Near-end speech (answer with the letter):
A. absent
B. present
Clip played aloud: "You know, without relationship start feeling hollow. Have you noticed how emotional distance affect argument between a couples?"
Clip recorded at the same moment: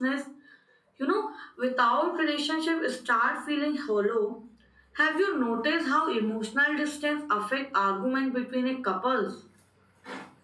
A